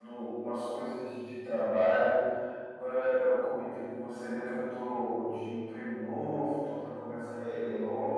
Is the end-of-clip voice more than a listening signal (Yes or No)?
No